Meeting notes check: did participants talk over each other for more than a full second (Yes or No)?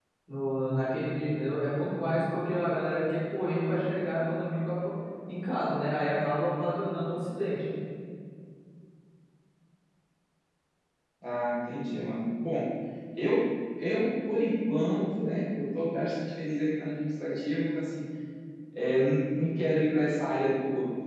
No